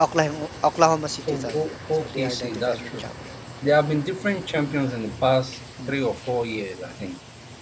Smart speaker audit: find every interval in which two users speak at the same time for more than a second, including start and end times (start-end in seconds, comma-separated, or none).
1.3-3.0